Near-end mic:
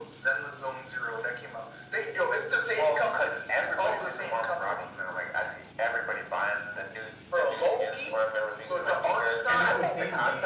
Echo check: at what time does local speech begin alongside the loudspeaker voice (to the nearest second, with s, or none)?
9 s